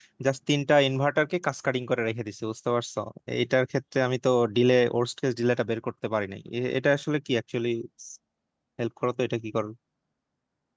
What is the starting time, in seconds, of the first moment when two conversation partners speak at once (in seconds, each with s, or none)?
none